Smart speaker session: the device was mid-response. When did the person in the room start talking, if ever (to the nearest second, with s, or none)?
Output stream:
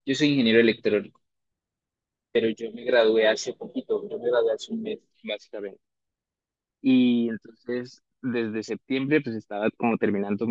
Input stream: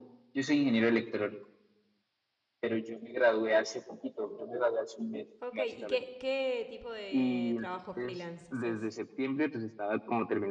5 s